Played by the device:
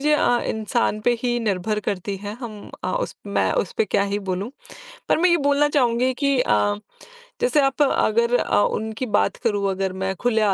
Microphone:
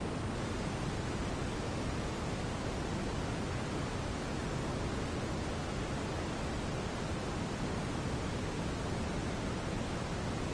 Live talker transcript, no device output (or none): none